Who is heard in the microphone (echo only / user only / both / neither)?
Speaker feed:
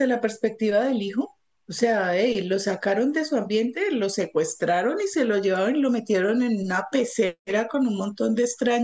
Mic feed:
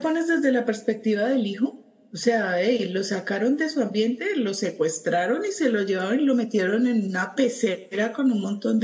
echo only